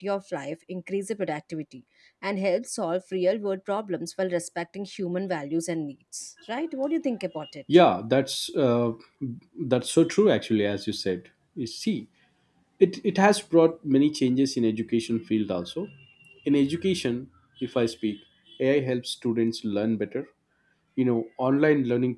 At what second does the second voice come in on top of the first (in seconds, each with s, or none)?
none